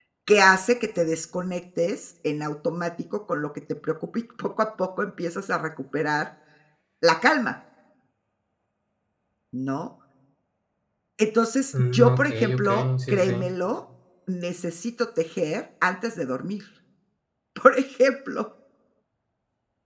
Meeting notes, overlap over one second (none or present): present